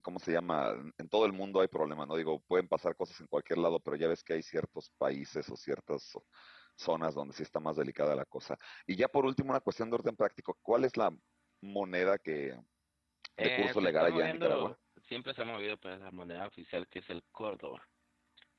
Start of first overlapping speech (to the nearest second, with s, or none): 13 s